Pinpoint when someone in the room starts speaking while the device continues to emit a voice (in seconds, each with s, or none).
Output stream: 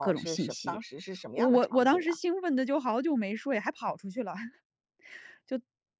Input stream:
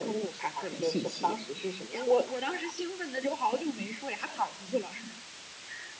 none